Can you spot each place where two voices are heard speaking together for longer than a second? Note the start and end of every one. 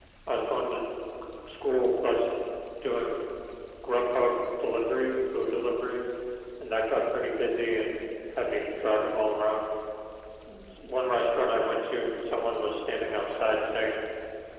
none

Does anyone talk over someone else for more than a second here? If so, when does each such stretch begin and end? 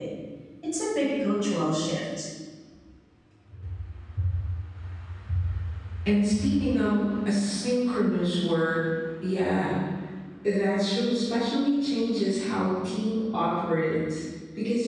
none

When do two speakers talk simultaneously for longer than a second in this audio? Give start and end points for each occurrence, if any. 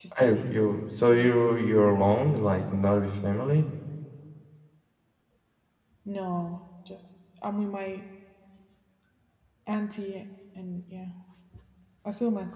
none

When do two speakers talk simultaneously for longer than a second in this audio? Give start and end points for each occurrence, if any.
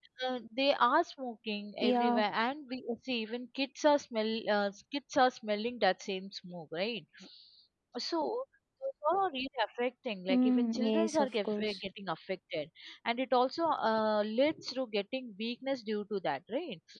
10.3-11.8

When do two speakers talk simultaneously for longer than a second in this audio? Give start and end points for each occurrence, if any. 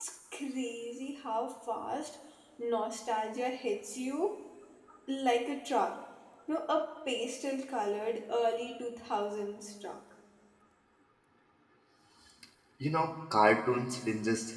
none

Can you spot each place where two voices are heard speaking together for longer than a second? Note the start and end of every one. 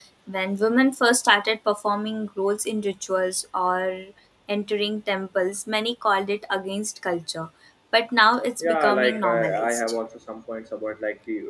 8.6-9.8

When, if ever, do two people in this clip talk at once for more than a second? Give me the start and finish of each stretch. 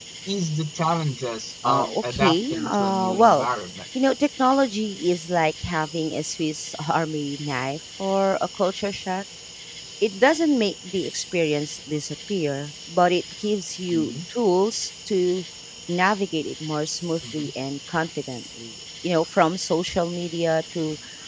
1.6-3.5

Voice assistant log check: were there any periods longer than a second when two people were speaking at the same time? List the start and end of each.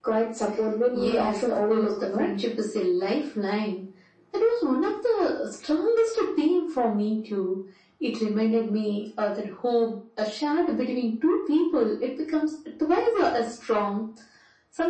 0.9-2.3

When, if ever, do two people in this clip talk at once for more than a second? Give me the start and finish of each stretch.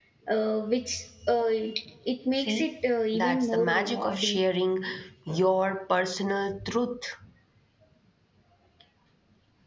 3.1-4.4

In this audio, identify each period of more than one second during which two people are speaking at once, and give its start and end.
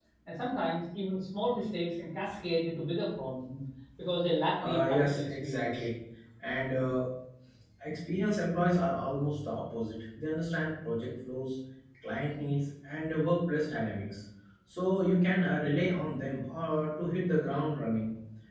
4.6-5.8

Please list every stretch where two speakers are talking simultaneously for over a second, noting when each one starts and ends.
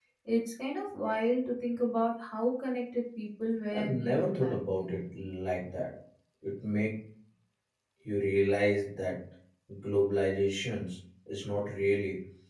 3.7-5.0

